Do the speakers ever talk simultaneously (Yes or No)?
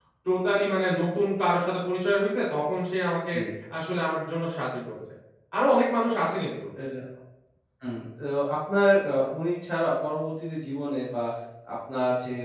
No